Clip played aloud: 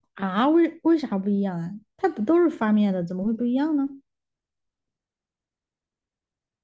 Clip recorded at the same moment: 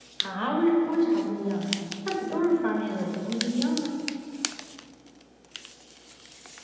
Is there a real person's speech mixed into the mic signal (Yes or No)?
No